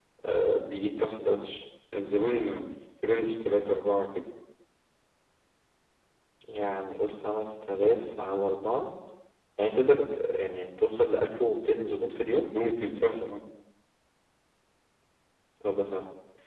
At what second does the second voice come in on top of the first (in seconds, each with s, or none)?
none